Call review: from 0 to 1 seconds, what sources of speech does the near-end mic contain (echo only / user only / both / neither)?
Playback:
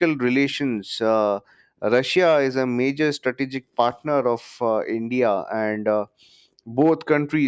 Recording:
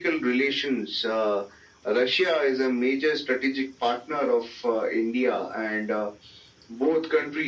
echo only